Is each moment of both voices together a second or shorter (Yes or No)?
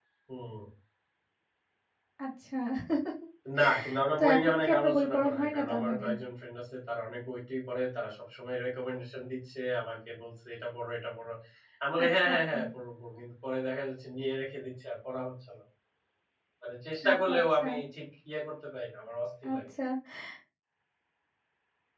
No